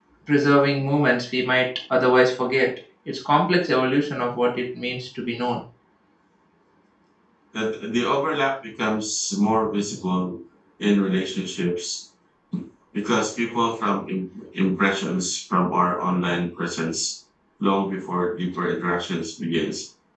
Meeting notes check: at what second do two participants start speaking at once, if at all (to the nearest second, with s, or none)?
none